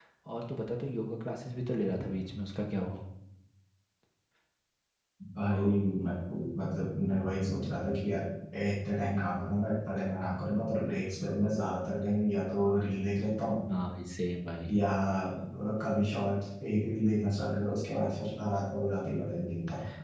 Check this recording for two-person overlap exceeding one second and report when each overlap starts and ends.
none

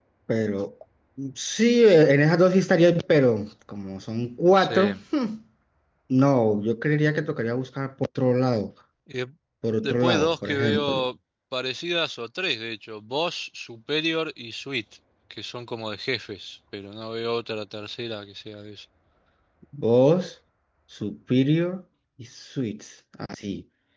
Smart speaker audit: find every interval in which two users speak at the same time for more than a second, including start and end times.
9.8-11.0

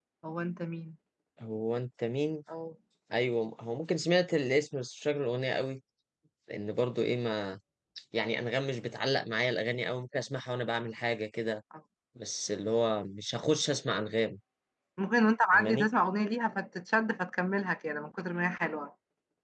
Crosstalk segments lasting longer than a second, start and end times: none

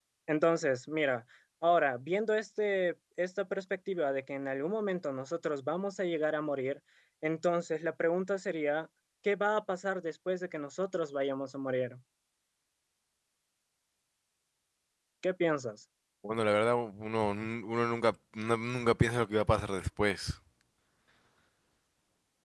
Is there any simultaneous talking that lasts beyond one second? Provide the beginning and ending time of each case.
none

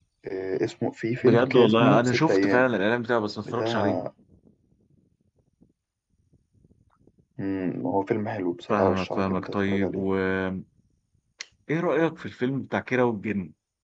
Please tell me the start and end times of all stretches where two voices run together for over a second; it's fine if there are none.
1.2-2.7, 8.7-10.0

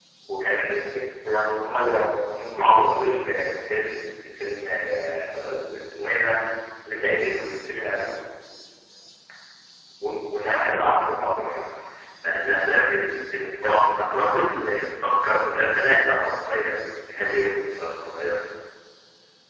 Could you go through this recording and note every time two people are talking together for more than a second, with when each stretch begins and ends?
1.6-3.0

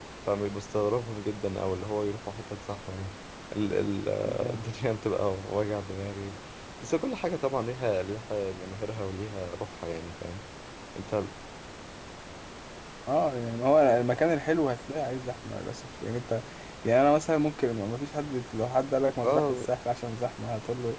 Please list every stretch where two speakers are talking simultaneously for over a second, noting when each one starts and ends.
none

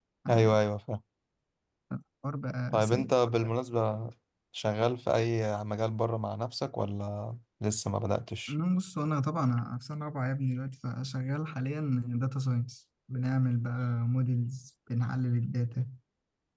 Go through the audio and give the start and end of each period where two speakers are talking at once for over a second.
none

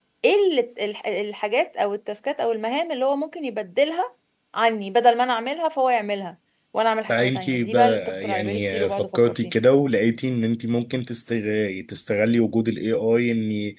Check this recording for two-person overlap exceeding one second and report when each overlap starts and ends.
7.1-9.5

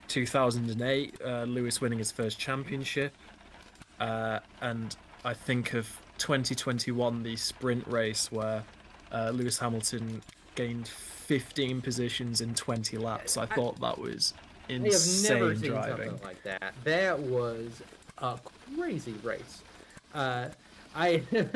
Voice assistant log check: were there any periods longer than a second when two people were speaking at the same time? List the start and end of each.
14.8-16.2

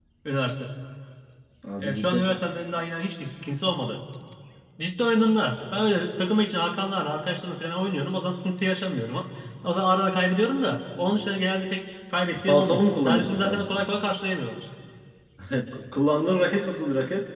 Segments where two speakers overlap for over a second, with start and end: 12.4-13.8

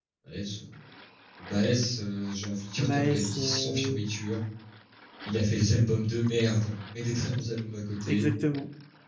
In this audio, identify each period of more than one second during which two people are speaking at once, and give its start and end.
2.8-4.0

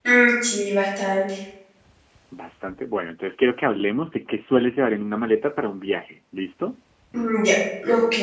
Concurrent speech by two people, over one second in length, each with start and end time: none

